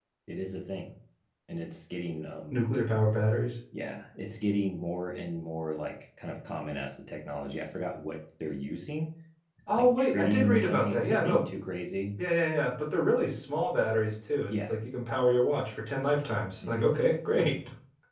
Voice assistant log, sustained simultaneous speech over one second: present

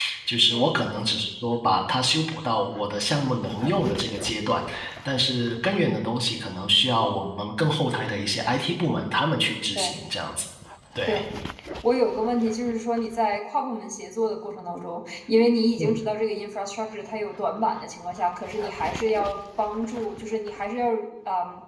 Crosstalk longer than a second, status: none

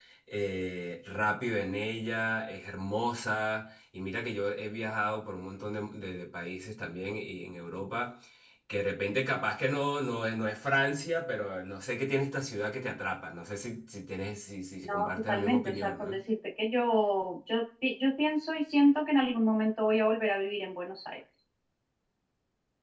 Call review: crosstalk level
present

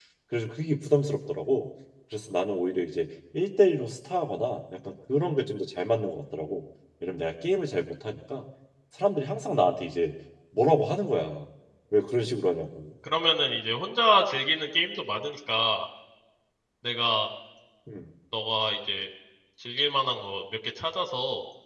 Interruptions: none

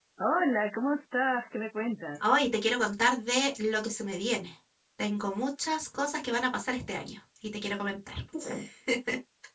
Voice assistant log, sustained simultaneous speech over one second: none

